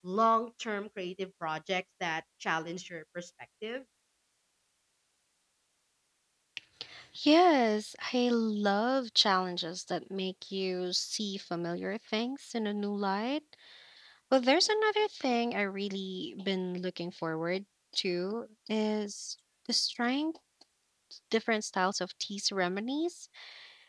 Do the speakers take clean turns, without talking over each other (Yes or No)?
Yes